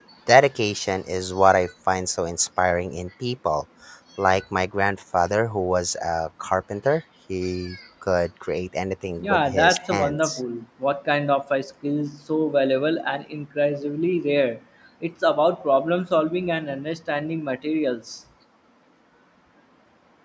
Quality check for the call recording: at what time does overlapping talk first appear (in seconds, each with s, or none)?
9.2 s